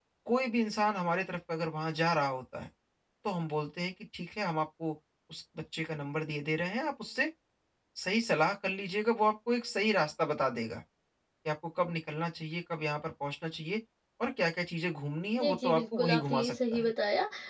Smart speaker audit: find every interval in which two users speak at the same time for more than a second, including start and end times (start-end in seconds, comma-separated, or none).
15.4-16.9